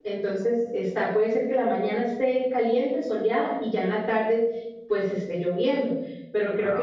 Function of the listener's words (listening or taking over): listening